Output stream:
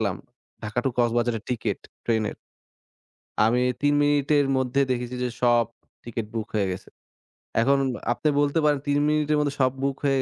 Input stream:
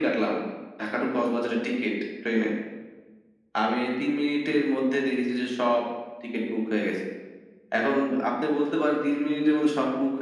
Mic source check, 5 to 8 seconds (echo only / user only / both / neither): echo only